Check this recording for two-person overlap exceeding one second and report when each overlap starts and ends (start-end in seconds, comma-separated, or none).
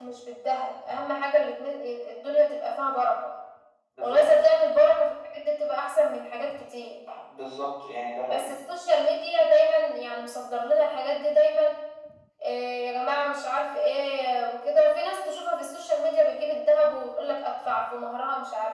none